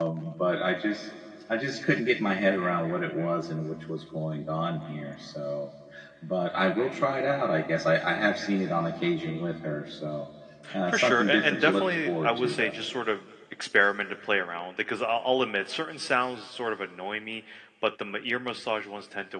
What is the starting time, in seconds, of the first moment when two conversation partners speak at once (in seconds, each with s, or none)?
10.9 s